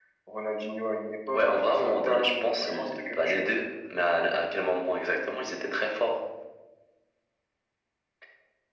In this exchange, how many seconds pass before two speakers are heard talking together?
1.3 s

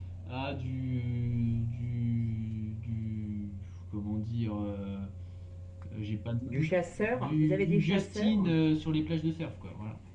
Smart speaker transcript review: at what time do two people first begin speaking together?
6.5 s

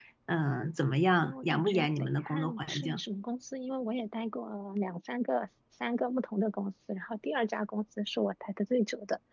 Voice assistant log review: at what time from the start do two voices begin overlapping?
1.2 s

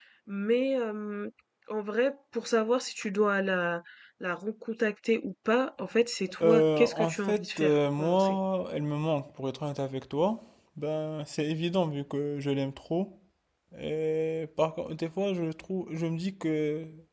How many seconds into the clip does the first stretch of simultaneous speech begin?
6.4 s

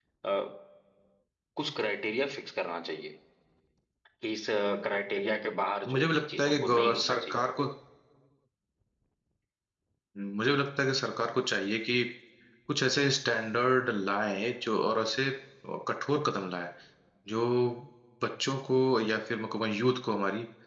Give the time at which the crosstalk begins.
5.8 s

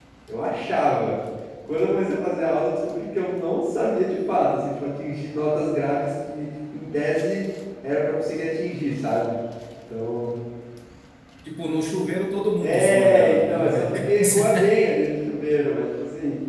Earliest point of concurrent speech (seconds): 12.6 s

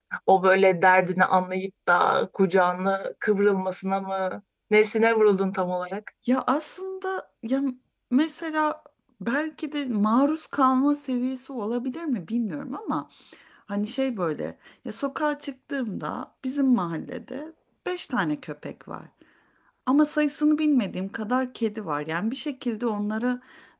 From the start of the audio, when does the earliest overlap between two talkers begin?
none

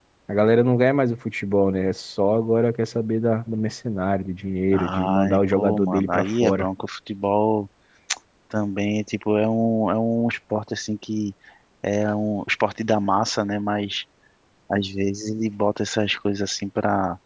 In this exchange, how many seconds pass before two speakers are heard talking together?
4.7 s

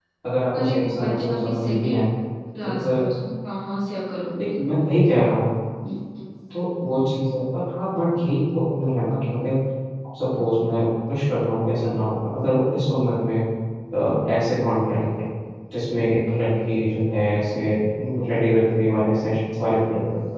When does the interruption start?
0.5 s

